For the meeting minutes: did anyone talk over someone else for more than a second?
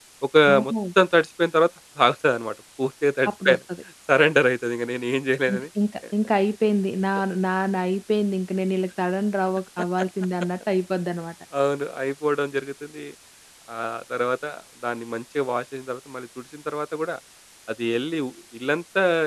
No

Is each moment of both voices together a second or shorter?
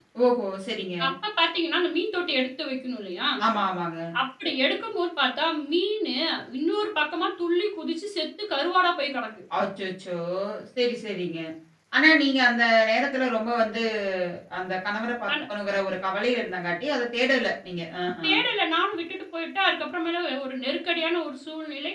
Yes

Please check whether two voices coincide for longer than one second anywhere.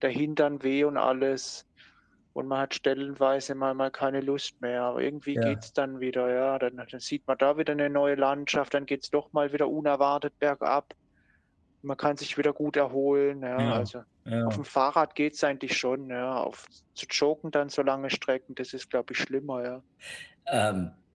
No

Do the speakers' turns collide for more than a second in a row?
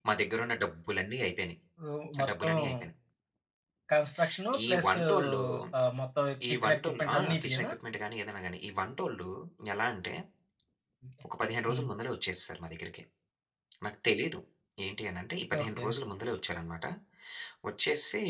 Yes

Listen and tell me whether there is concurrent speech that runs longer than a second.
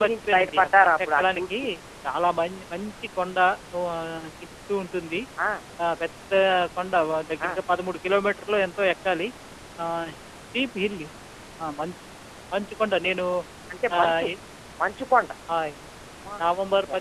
Yes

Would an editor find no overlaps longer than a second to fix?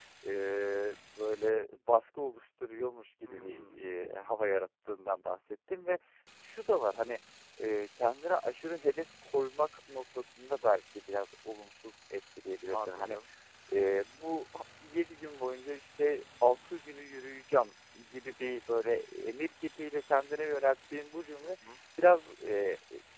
Yes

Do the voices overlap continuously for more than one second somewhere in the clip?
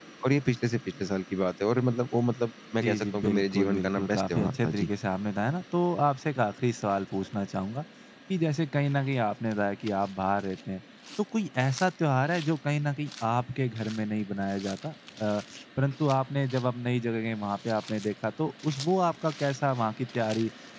Yes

